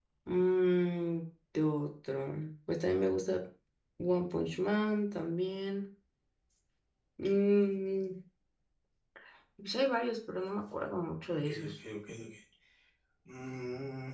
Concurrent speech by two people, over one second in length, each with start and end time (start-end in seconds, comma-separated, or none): none